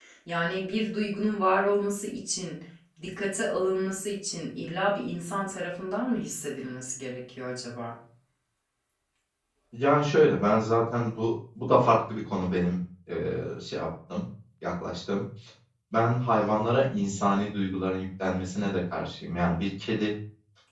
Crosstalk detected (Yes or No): No